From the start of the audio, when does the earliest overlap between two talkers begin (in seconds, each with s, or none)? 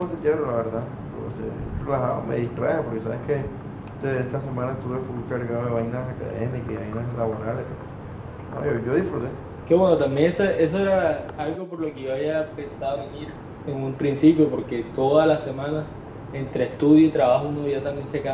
none